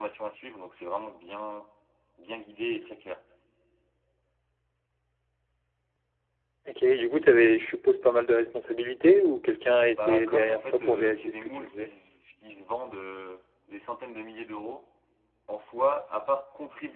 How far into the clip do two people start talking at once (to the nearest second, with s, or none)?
10 s